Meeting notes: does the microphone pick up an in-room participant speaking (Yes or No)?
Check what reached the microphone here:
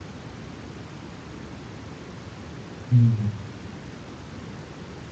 Yes